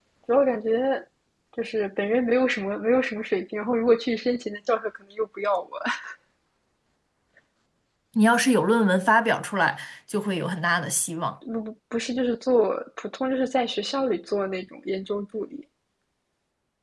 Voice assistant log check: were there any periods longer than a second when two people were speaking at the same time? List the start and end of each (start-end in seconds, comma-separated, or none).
none